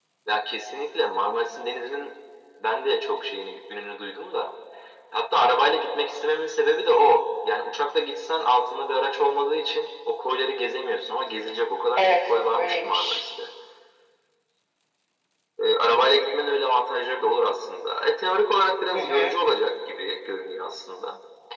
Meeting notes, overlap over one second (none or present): present